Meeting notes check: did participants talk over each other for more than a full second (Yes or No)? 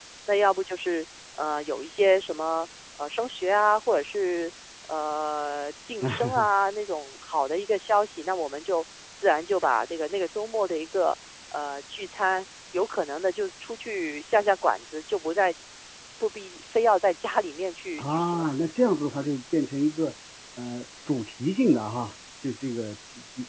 No